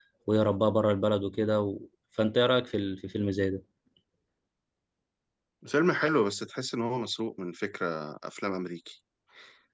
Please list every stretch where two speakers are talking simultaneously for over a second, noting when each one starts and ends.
none

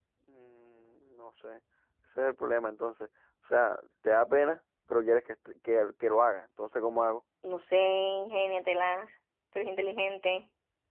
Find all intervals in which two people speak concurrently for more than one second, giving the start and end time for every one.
none

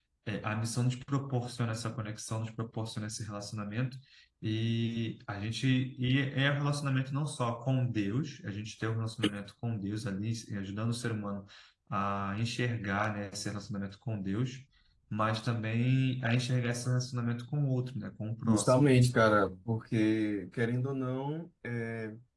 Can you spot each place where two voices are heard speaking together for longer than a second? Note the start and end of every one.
none

